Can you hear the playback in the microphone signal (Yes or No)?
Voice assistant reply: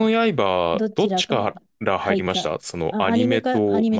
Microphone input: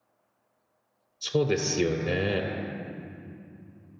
No